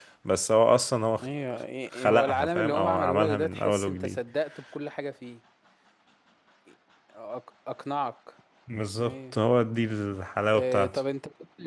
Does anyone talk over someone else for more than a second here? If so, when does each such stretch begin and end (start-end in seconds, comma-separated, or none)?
1.9-4.2